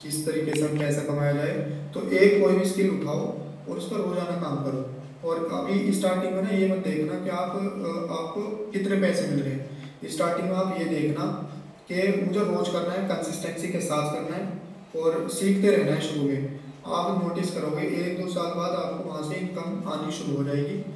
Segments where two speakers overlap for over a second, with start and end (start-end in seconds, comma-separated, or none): none